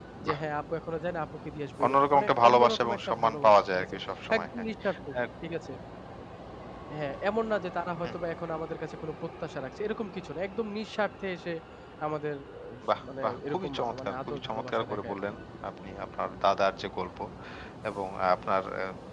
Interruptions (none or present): present